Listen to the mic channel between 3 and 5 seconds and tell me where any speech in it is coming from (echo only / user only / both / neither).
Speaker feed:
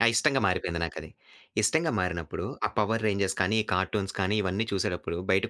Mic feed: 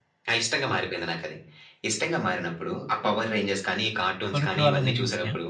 both